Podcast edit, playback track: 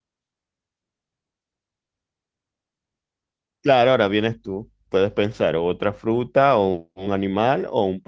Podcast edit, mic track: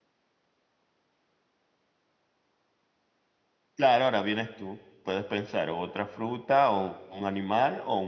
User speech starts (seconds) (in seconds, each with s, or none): none